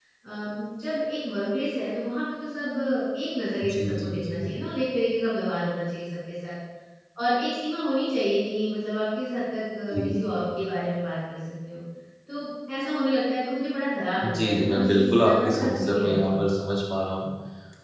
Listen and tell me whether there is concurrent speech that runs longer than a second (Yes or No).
Yes